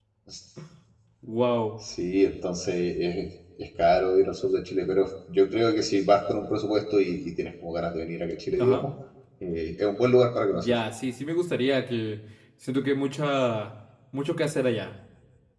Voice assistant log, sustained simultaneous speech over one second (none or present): none